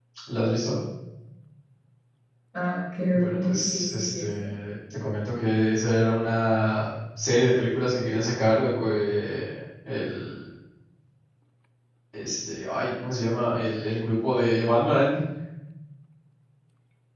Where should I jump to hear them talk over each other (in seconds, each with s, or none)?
3.1 s